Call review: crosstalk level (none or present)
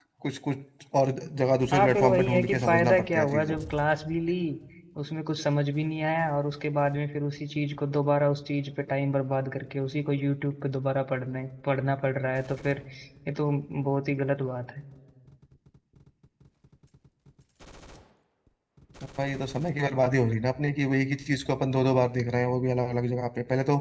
present